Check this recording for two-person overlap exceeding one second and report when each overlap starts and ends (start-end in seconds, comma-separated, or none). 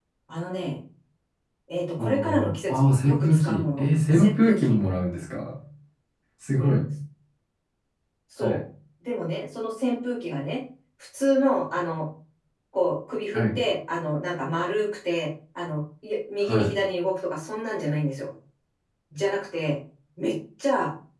2.0-4.8